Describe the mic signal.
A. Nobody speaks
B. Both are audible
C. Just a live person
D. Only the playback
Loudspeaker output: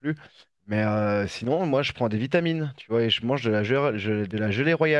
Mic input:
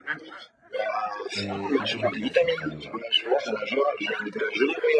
B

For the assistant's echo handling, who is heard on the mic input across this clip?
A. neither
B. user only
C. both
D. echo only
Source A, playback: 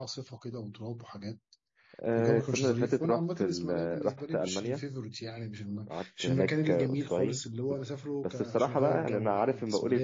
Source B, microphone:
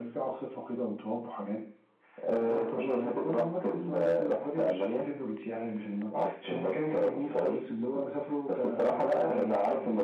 D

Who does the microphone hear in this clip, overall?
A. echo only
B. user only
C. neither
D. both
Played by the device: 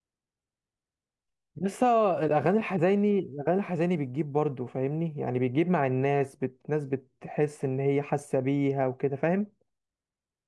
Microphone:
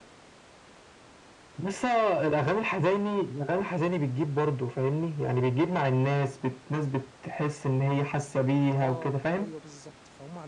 D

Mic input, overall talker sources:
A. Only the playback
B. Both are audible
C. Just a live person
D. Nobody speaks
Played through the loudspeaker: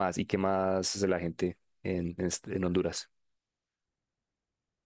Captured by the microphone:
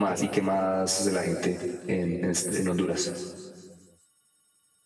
A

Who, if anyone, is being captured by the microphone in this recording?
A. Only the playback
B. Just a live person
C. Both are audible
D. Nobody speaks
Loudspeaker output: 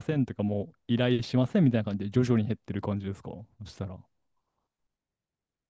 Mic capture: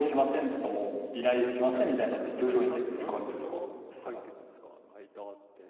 C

